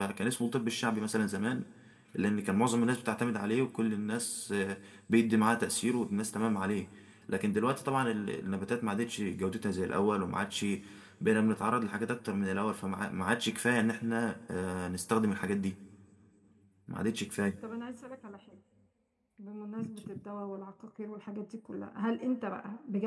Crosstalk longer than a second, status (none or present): none